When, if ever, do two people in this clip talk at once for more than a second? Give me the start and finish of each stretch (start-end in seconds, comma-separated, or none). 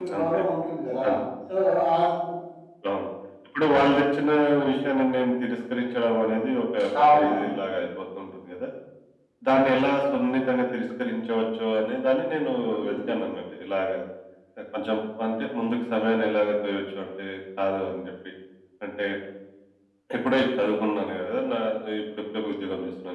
none